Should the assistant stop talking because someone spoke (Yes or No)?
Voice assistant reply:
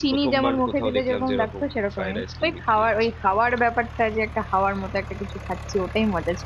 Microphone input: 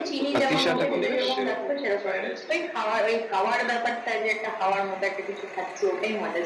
Yes